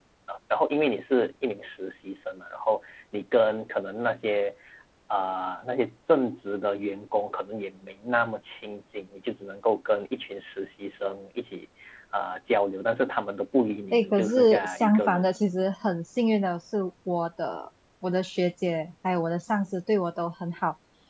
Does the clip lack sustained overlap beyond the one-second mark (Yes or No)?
No